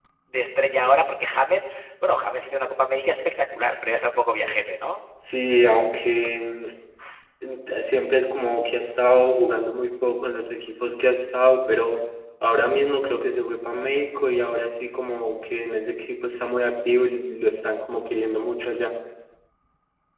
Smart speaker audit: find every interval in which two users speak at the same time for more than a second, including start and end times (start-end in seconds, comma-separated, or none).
none